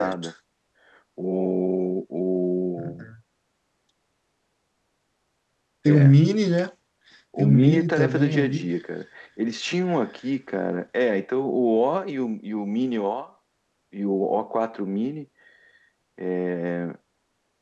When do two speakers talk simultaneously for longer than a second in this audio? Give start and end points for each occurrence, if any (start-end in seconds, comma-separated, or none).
7.4-8.7